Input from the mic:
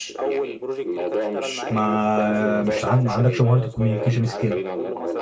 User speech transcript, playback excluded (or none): ما مش عن... ما عندكش مهاره الكوميونيكيشن سكيل